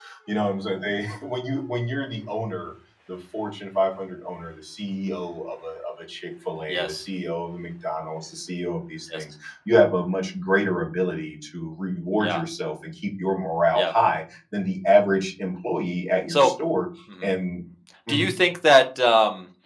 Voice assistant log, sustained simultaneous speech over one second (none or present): none